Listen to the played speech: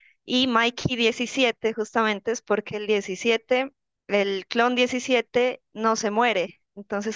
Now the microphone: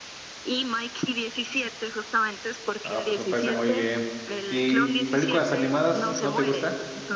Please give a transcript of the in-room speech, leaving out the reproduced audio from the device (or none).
Ah, pues me parece muy bien. ¿Y películas animadas no te gustan?